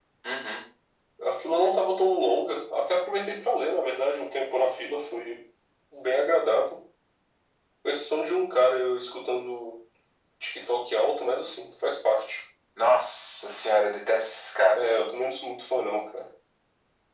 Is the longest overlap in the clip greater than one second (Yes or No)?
No